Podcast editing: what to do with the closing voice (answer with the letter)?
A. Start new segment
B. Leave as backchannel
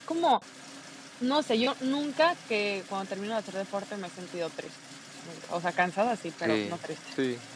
A